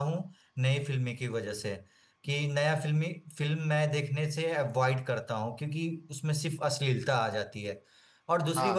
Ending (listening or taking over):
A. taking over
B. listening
A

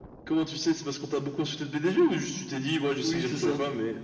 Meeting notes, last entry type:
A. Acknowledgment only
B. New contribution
B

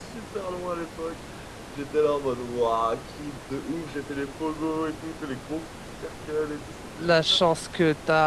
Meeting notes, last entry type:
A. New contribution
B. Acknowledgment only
A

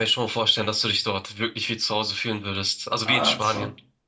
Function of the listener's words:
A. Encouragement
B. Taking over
B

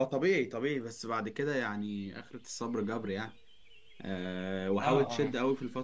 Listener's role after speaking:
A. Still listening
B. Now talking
A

